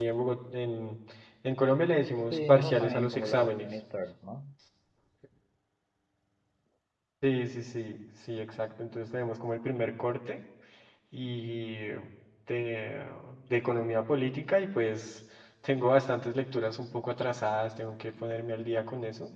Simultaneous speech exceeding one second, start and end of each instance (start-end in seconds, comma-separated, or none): 2.3-3.8